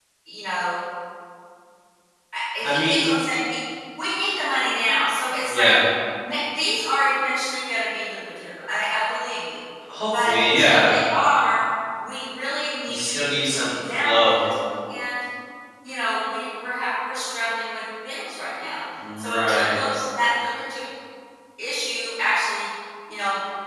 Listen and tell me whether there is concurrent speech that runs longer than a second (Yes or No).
Yes